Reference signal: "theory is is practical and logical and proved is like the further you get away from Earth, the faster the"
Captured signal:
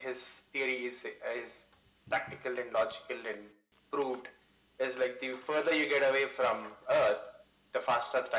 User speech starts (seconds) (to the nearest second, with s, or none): none